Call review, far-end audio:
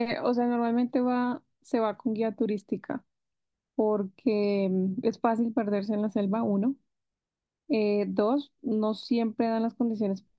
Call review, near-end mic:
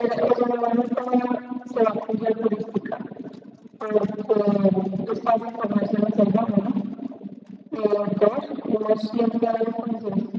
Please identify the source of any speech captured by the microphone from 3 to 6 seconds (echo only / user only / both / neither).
echo only